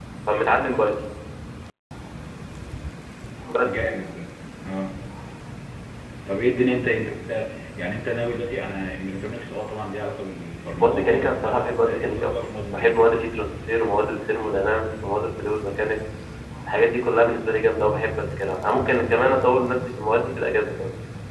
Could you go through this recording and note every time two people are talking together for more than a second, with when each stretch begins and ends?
10.8-13.1

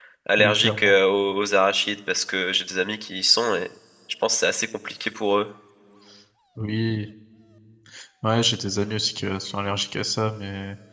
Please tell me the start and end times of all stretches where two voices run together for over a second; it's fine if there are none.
none

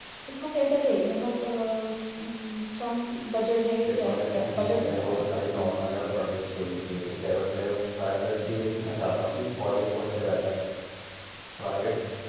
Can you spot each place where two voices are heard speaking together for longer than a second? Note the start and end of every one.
3.8-5.7

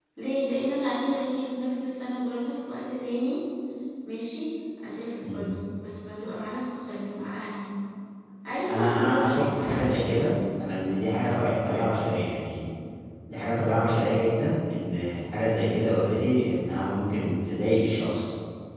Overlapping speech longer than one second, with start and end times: 8.7-10.3

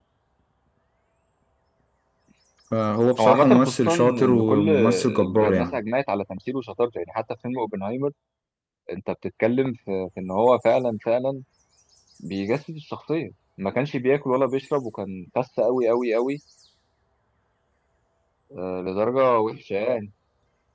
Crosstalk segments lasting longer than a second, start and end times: 3.2-5.8

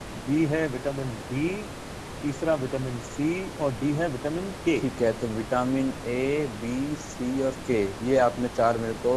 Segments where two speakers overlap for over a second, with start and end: none

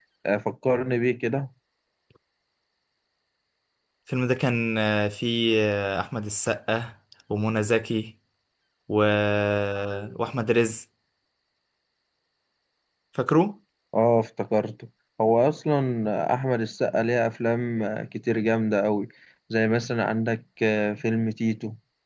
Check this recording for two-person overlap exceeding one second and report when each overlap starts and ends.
none

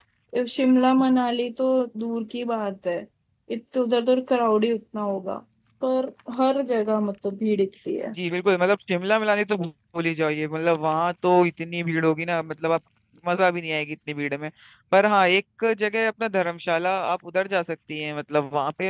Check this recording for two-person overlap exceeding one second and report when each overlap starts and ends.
none

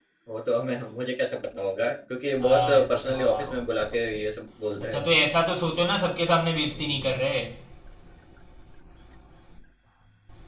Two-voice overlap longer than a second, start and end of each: 2.5-4.2

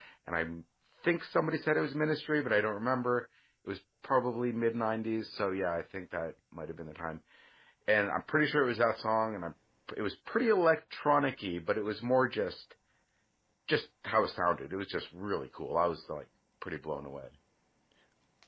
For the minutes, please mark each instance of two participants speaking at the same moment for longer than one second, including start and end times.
none

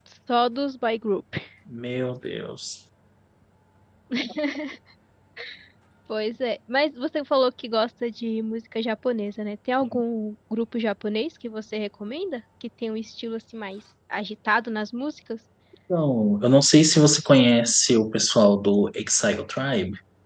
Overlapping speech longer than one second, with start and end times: none

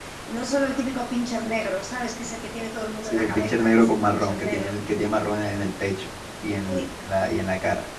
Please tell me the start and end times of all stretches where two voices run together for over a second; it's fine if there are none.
3.0-4.8

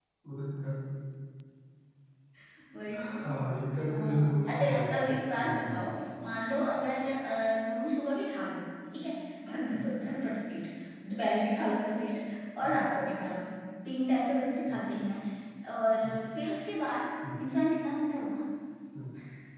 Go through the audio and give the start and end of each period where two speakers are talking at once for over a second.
3.8-5.9

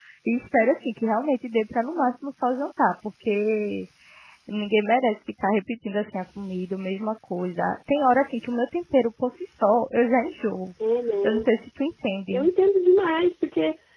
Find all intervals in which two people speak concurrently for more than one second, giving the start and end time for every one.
none

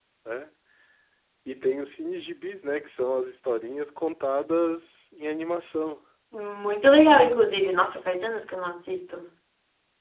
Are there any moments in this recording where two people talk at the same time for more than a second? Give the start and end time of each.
none

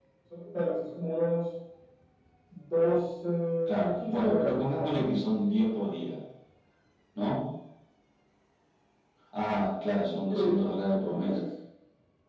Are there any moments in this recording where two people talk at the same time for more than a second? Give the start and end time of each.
3.7-5.1

